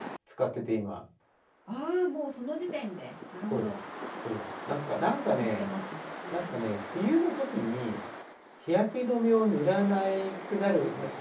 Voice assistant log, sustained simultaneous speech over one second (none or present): none